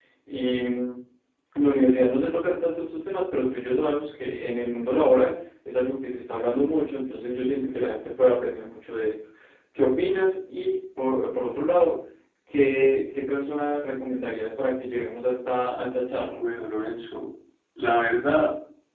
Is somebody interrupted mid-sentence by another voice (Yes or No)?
No